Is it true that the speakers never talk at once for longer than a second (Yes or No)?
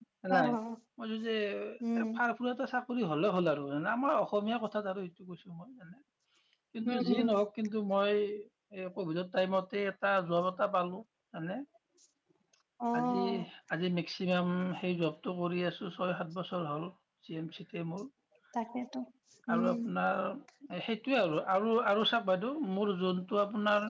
Yes